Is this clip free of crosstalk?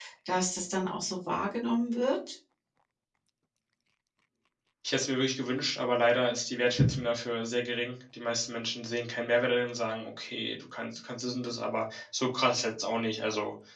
Yes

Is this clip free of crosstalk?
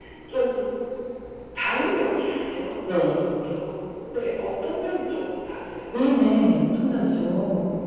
Yes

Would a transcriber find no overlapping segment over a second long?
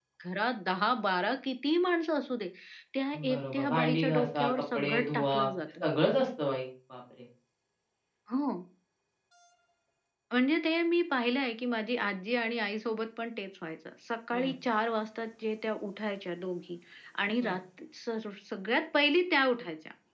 No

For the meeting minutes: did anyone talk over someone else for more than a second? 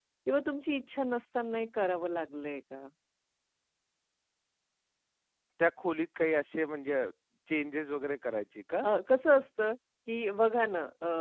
No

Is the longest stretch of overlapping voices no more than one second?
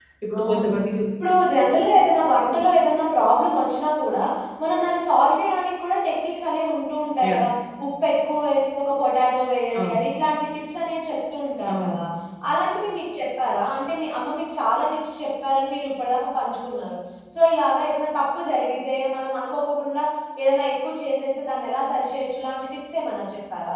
Yes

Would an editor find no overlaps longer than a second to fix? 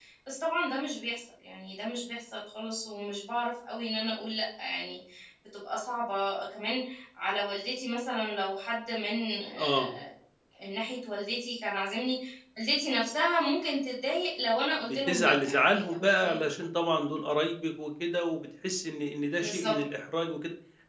No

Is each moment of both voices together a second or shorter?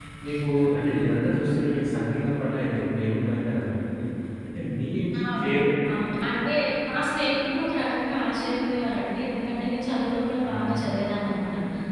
Yes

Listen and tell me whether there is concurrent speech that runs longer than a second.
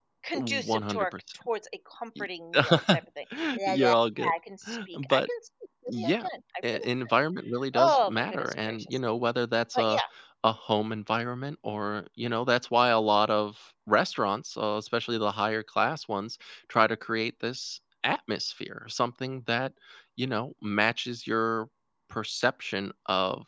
Yes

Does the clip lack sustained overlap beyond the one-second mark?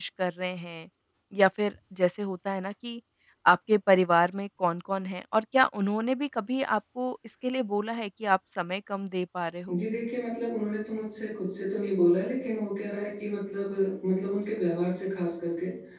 Yes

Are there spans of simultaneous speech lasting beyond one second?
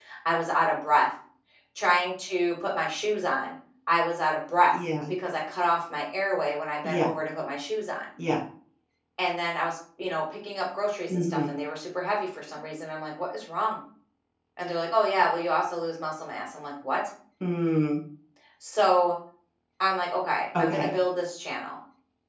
No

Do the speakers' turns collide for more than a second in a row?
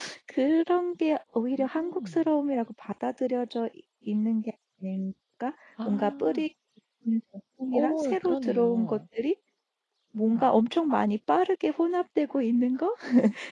Yes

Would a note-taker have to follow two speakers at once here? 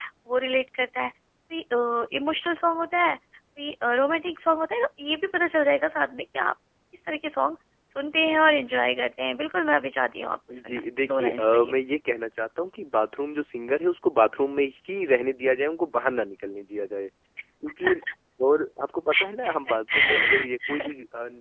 Yes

